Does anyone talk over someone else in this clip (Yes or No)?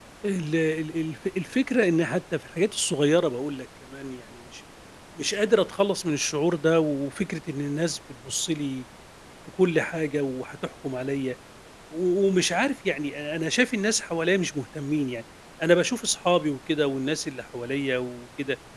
No